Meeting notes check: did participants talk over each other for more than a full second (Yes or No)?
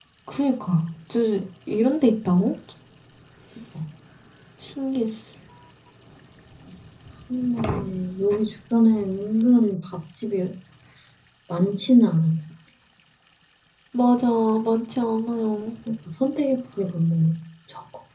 No